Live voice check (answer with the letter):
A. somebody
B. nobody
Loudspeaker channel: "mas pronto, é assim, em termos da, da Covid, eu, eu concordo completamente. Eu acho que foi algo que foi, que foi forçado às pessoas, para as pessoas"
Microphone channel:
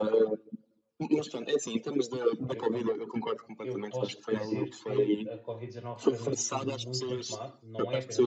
A